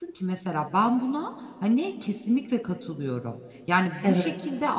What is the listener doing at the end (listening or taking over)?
listening